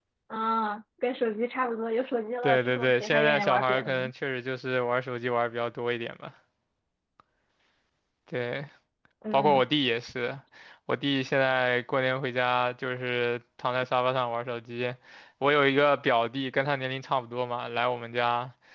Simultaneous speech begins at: 2.4 s

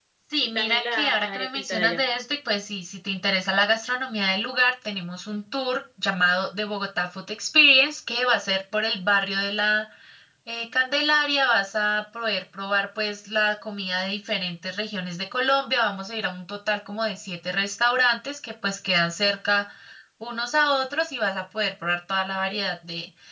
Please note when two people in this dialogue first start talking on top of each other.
0.6 s

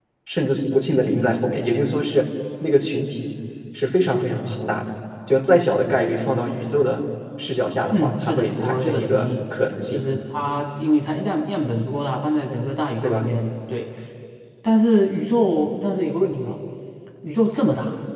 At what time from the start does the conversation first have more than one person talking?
7.9 s

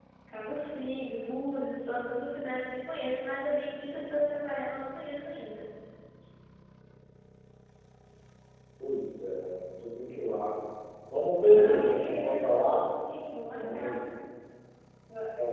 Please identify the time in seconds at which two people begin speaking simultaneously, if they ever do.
11.5 s

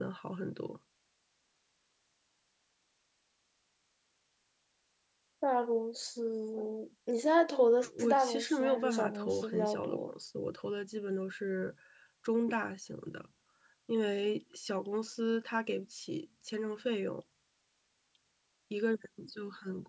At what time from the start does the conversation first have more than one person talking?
7.8 s

